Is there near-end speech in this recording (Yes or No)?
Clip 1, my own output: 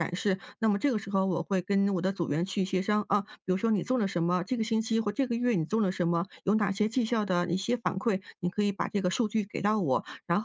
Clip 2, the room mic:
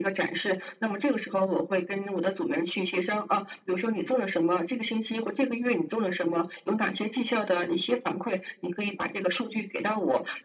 No